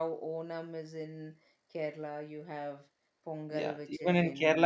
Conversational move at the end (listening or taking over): taking over